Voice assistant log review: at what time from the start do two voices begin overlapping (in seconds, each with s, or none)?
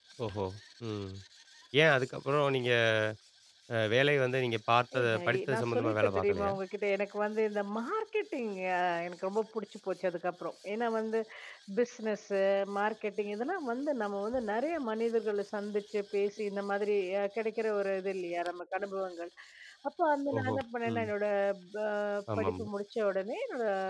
5.0 s